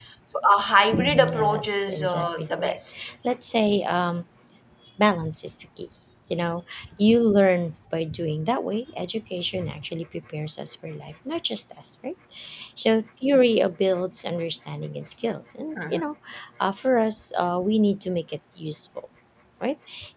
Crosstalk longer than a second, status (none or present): present